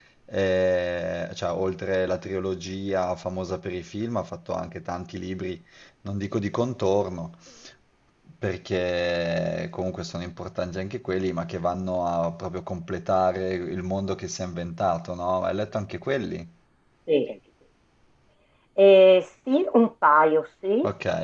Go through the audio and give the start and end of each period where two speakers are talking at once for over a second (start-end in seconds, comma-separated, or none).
none